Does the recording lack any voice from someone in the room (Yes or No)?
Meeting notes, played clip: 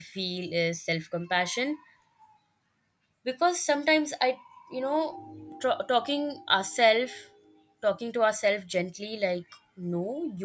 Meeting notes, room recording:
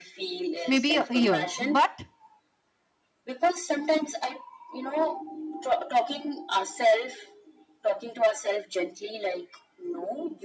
No